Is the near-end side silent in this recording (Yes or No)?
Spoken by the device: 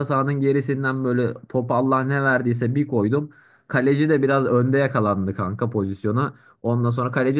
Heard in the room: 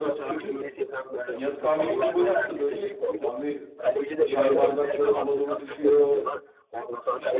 No